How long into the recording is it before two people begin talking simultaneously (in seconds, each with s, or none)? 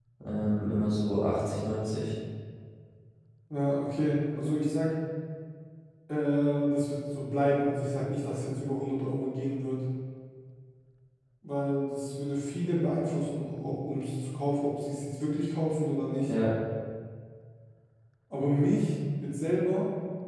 none